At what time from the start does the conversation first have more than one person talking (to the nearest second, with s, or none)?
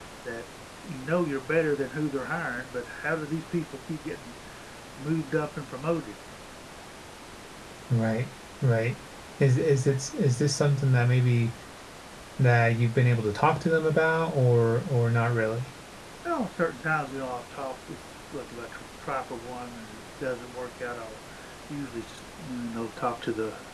none